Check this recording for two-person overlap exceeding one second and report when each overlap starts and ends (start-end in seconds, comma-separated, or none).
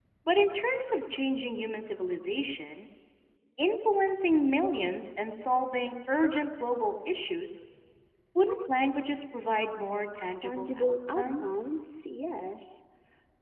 10.4-11.7